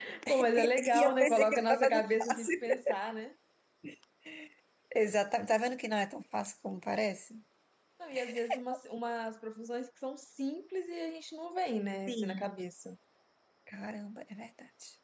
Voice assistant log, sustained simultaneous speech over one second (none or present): present